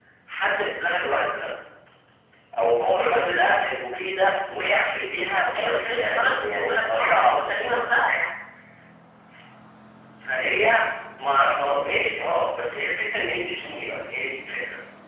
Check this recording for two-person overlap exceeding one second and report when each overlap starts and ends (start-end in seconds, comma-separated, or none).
5.5-7.8